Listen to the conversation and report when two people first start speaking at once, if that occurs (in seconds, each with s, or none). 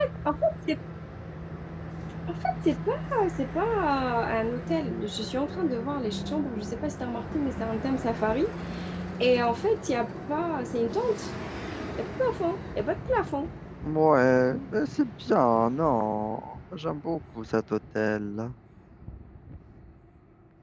none